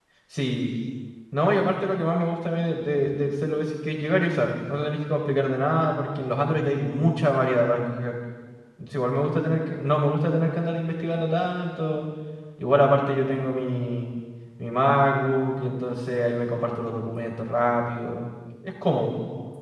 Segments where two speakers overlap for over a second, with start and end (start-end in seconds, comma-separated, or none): none